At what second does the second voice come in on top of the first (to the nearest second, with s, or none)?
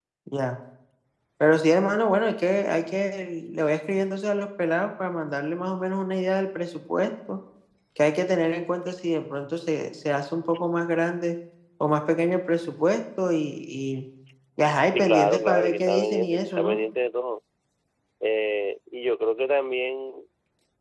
15 s